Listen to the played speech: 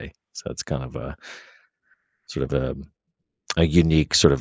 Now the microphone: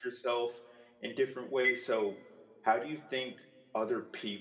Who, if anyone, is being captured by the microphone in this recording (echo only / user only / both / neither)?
user only